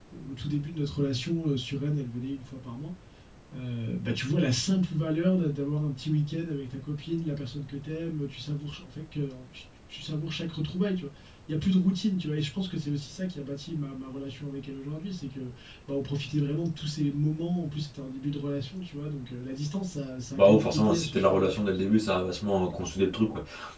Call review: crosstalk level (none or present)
present